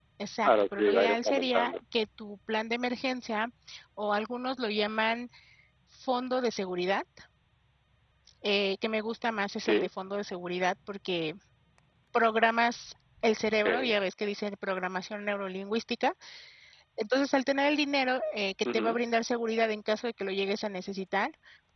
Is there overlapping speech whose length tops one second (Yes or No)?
Yes